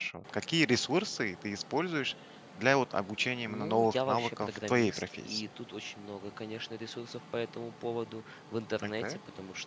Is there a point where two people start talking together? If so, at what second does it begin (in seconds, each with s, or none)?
3.5 s